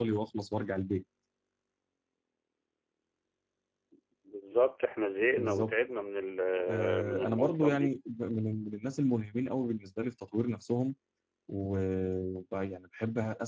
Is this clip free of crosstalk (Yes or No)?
No